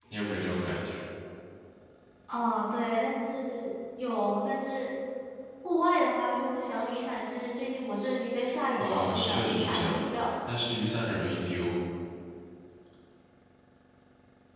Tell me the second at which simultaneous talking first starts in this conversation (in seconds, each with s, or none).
8.8 s